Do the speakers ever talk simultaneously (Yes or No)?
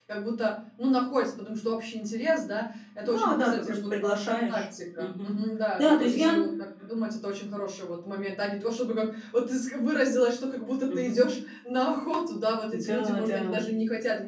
Yes